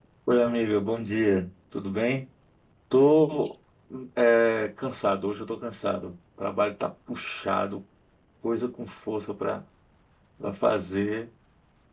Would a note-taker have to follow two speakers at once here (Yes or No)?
No